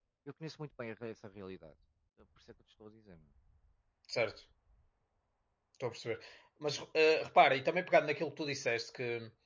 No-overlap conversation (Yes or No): Yes